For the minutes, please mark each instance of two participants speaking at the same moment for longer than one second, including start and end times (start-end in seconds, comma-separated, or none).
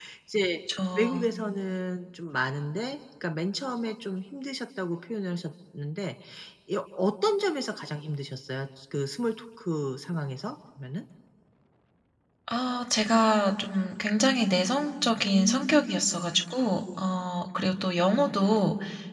none